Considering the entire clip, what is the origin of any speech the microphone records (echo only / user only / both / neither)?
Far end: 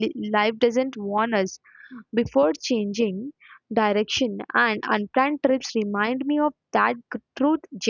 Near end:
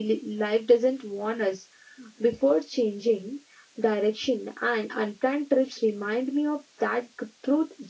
echo only